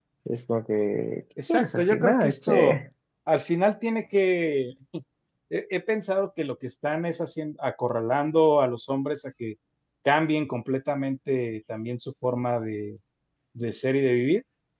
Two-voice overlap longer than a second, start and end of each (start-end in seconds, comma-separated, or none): 1.5-2.8